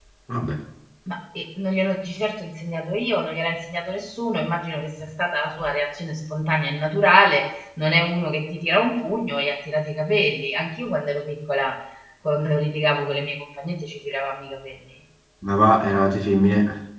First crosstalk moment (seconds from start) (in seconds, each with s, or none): none